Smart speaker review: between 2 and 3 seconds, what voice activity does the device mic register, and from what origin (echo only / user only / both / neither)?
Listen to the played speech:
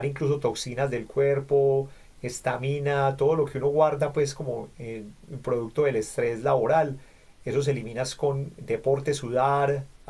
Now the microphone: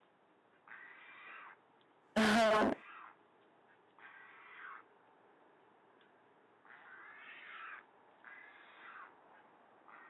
user only